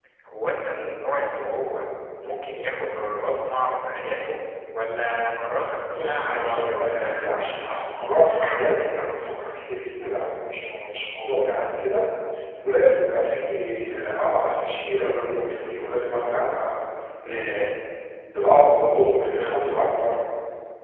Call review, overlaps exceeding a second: present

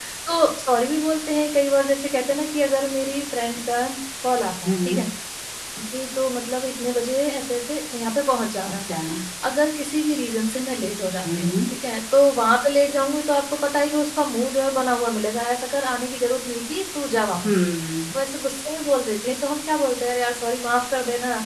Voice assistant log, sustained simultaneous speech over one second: none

